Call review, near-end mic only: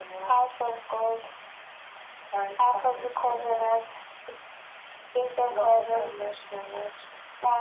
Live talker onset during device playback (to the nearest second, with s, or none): none